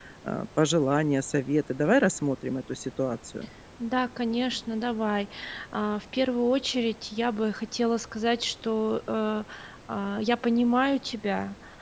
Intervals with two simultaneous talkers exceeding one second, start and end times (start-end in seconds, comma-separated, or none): none